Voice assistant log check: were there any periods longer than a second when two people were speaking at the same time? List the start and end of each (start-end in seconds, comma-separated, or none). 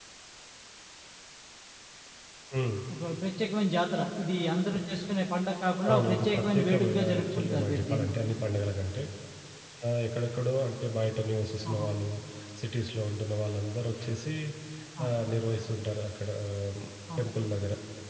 5.9-8.1